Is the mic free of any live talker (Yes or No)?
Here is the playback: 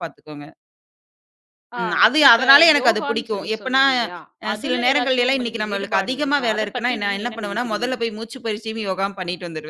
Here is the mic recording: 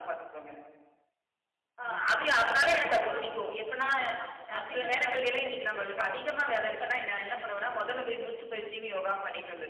Yes